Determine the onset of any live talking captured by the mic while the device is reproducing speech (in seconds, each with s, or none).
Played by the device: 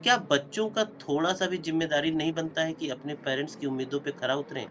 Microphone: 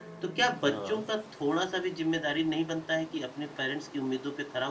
0.7 s